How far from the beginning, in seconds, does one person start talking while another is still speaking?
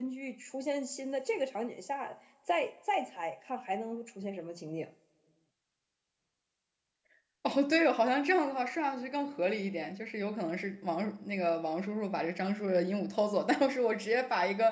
none

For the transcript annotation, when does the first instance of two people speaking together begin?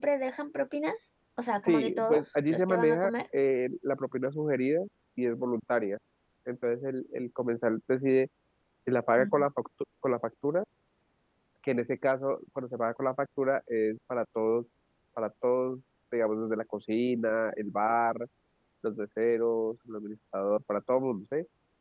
2 s

